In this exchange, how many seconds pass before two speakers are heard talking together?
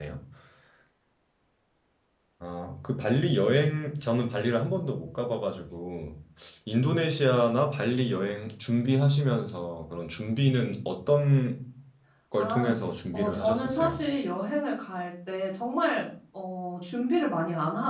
12 s

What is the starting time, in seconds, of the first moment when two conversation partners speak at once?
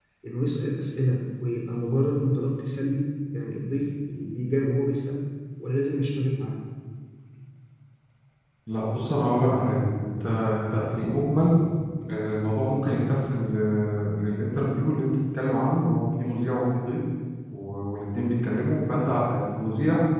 none

